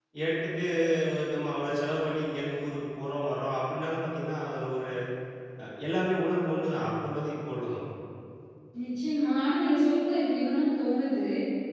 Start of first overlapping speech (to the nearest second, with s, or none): none